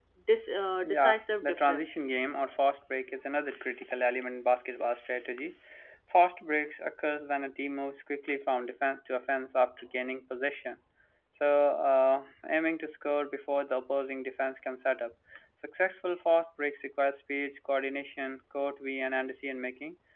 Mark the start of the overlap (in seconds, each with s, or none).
0.8 s